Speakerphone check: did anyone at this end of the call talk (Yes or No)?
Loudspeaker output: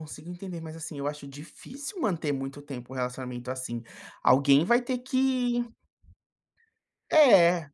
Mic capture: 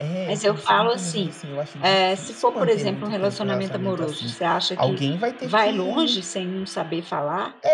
Yes